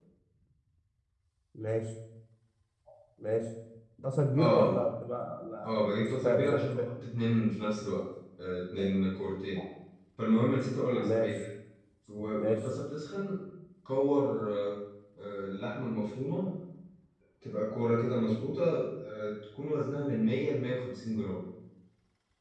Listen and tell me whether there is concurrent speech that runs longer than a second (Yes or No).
Yes